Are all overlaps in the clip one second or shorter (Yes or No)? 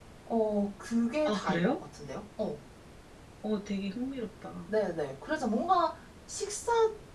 Yes